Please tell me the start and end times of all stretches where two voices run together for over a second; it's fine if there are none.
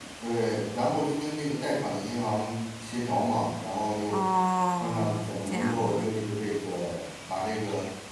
4.8-6.1

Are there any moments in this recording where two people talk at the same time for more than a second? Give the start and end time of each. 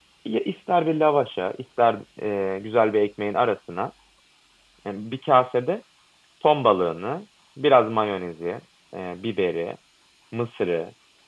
none

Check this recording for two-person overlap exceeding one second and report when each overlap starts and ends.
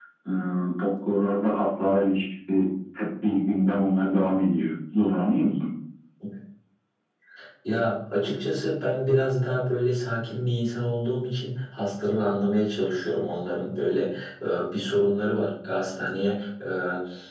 none

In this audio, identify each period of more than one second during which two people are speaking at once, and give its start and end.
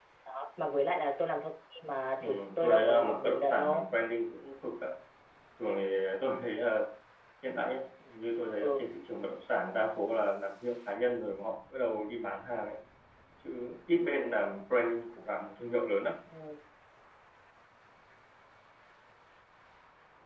2.2-3.9

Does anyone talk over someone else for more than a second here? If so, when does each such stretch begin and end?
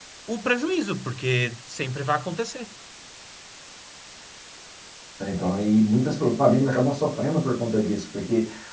none

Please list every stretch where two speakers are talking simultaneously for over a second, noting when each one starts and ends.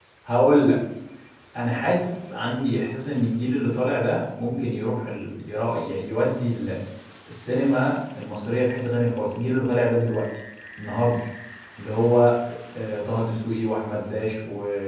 none

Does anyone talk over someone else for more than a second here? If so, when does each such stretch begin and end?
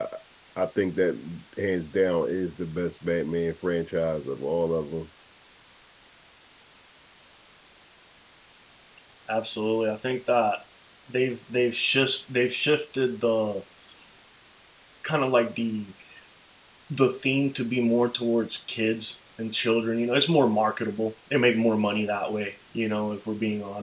none

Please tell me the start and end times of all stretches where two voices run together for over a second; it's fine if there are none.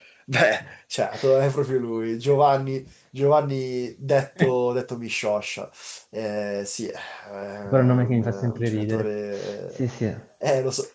7.7-9.1

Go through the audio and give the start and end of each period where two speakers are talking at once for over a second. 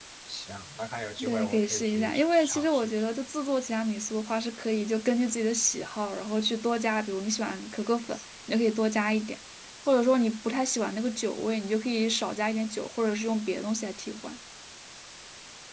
1.2-2.9

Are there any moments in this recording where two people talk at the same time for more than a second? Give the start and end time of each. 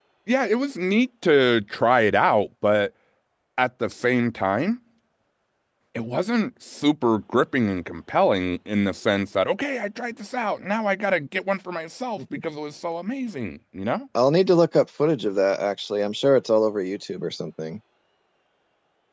none

